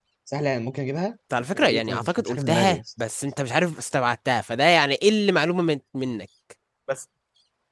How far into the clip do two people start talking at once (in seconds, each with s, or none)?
1.5 s